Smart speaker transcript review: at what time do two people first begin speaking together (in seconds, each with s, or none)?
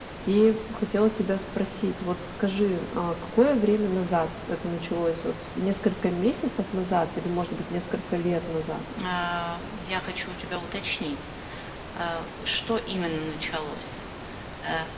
none